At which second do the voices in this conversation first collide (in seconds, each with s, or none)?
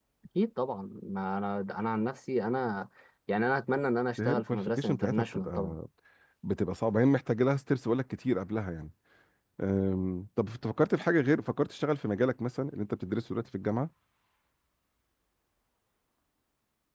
4.2 s